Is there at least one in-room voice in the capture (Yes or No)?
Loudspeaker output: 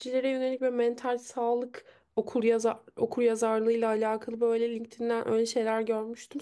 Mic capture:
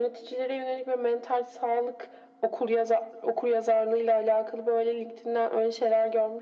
No